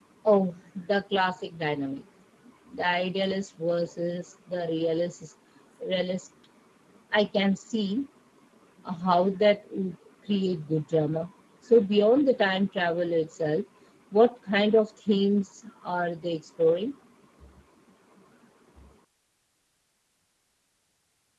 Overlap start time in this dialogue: none

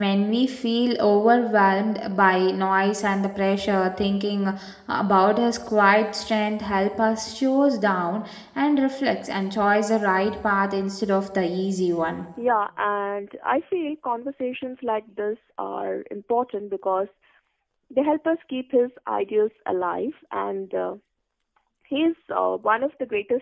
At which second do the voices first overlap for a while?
none

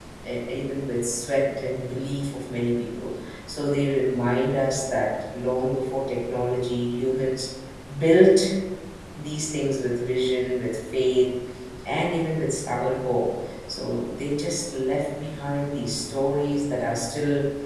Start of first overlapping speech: none

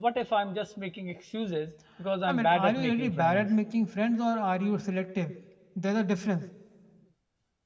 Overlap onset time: 2.3 s

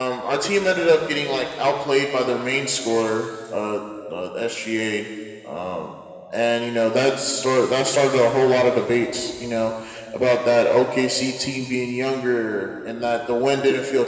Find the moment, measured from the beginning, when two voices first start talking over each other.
none

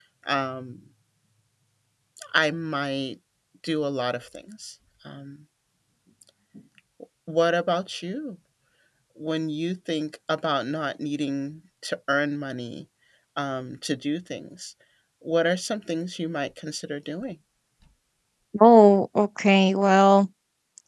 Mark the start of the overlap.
none

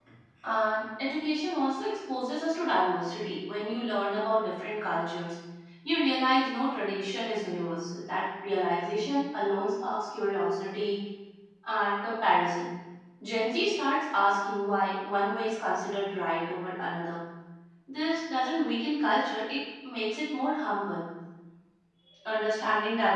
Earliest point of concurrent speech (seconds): none

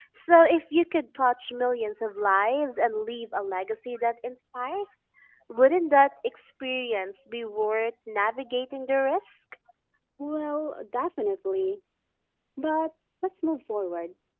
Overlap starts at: none

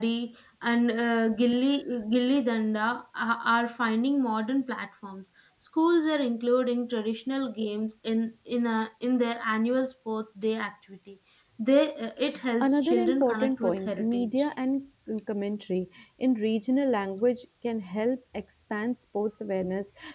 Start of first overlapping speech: 12.6 s

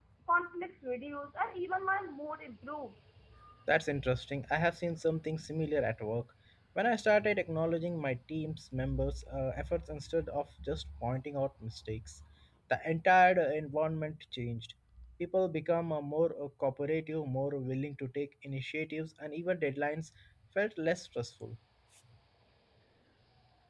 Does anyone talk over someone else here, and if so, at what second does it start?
none

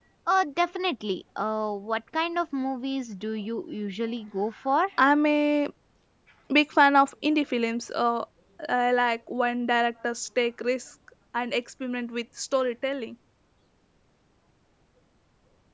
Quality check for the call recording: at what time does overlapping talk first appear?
none

